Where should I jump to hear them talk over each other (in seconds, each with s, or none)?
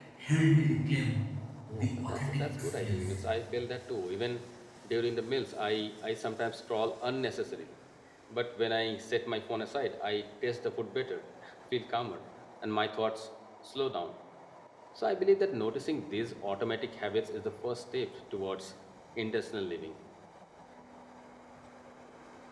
1.7 s